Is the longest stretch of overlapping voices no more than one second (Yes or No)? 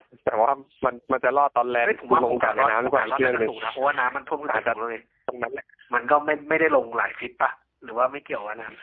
No